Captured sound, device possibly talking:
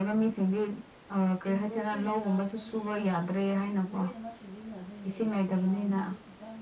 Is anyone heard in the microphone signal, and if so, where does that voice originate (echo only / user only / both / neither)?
both